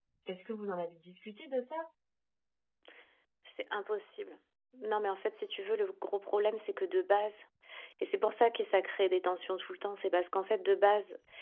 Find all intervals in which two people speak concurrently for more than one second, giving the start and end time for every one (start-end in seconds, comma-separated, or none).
none